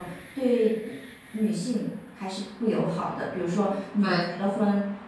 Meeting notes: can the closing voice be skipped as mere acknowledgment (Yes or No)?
Yes